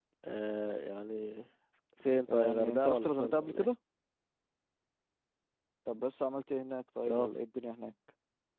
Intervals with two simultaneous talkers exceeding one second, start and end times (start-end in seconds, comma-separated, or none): 2.3-3.7